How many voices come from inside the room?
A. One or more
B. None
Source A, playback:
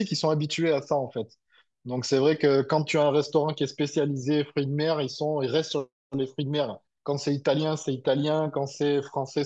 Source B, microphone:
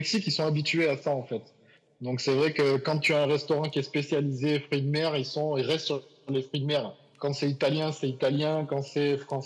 B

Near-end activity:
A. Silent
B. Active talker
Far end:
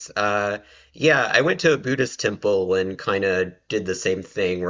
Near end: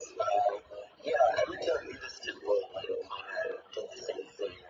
A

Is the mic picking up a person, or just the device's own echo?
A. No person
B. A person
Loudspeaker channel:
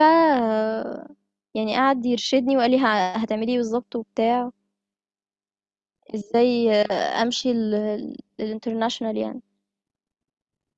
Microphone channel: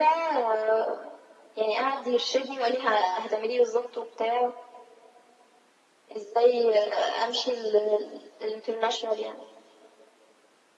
A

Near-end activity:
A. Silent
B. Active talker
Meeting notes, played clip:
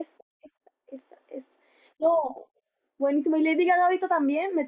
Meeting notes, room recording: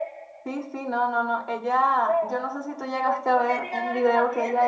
B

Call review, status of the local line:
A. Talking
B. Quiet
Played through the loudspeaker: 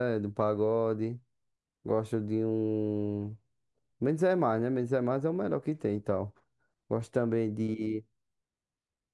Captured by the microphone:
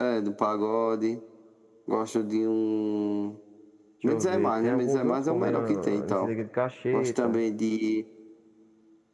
A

